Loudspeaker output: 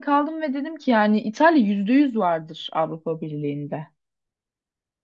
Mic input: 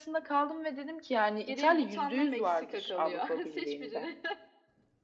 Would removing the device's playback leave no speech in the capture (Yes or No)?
No